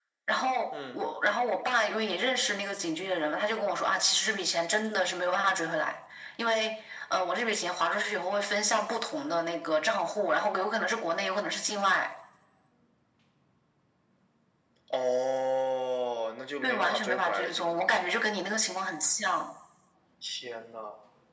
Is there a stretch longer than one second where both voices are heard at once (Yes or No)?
Yes